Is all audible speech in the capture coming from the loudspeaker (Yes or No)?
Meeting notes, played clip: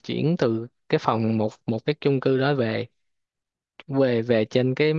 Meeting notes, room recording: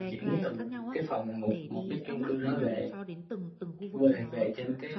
No